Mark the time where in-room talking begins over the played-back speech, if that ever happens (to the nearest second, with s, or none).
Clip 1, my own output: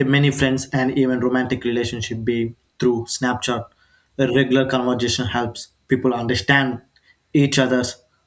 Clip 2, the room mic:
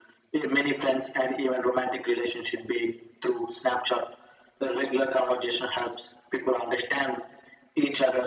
none